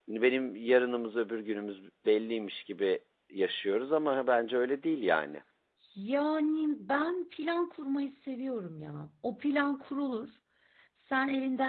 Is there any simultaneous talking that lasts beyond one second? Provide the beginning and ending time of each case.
none

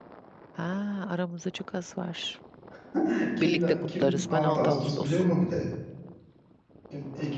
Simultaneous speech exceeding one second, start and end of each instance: 3.4-5.2

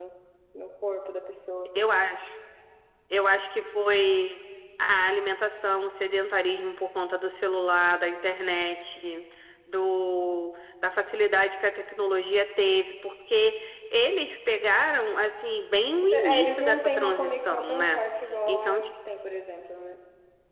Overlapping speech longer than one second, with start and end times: 16.1-18.0

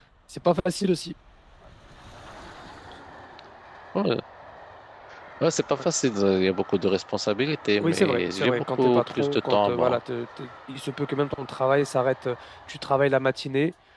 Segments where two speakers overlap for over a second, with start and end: 7.8-10.0

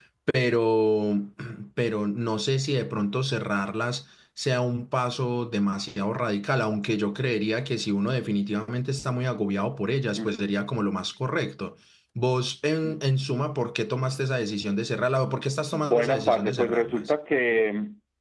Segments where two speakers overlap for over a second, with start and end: 15.7-17.0

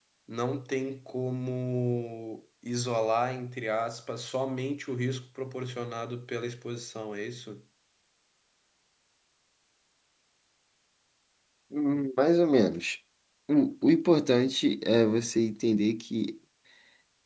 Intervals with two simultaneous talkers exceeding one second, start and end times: none

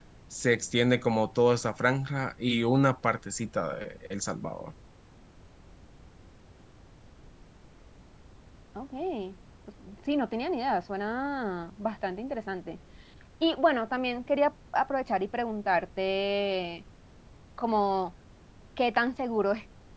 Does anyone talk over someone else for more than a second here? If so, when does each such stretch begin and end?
none

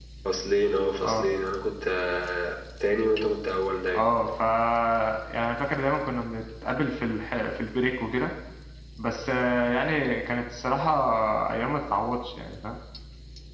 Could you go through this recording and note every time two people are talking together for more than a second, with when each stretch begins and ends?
none

